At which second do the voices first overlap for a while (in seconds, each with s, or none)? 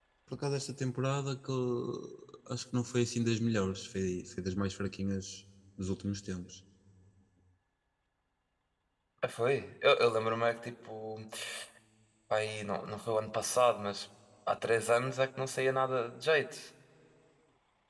none